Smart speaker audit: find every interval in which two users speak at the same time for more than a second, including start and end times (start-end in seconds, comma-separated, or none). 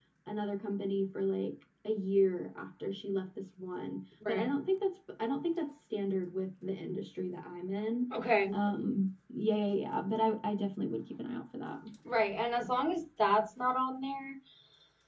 none